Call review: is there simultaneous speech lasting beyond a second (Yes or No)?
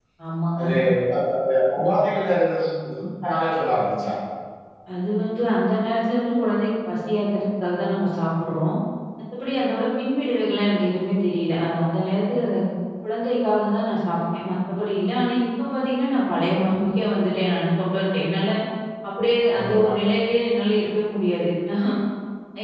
No